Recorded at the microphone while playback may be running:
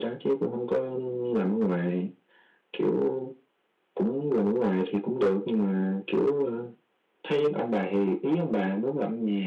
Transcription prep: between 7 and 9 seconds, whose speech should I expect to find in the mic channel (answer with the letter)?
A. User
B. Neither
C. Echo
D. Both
C